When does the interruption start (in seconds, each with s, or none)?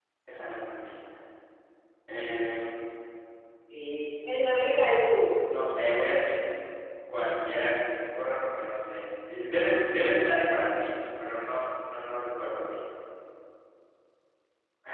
none